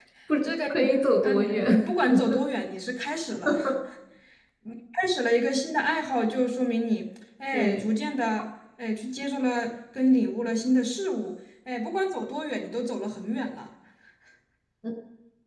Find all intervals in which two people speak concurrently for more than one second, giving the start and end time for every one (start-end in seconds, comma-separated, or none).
none